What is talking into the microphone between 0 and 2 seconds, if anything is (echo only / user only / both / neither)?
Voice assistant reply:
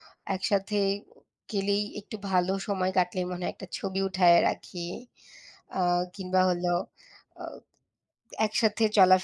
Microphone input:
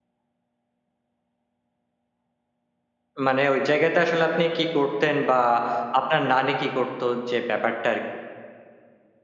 neither